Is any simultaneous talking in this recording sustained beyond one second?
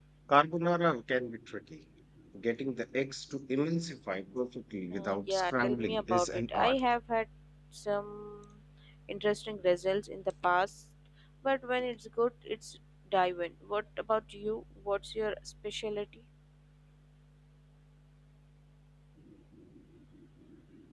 Yes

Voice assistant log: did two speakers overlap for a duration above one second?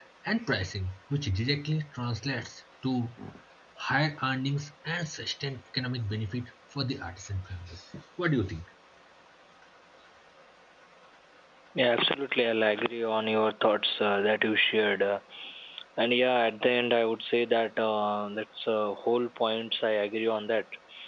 No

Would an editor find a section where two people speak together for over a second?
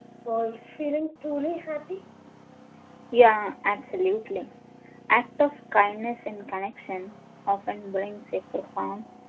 No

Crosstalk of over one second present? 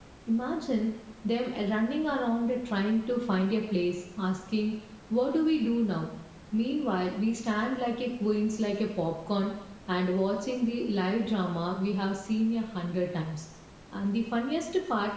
No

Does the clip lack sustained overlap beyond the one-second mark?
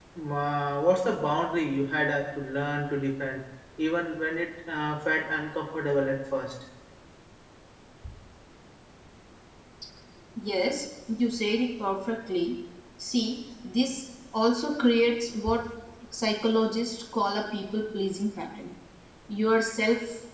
Yes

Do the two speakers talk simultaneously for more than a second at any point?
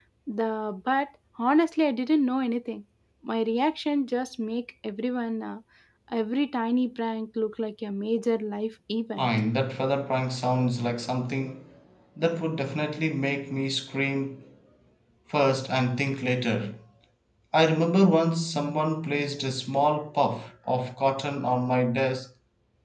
No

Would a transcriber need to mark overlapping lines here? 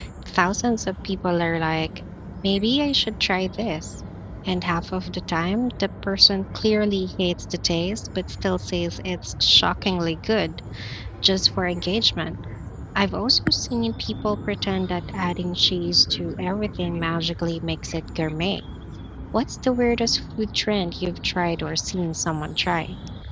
No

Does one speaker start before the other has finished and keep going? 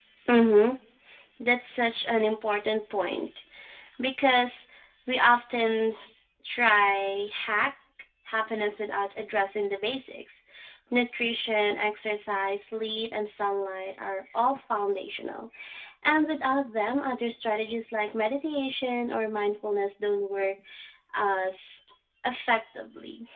No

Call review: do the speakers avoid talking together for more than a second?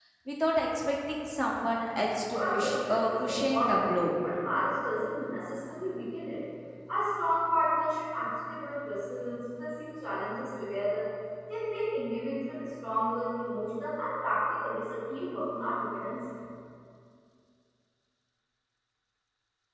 No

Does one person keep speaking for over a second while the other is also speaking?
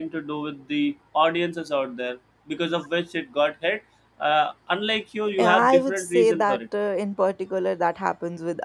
Yes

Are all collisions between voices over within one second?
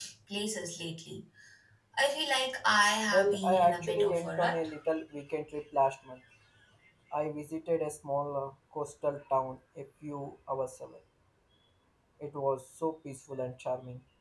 No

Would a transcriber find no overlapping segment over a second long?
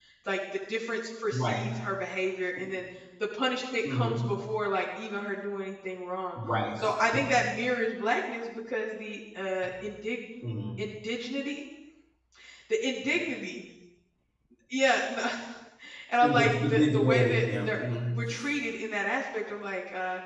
No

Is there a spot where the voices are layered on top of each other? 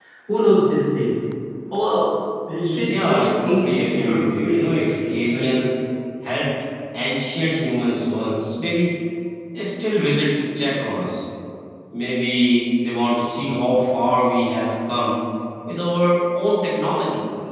Yes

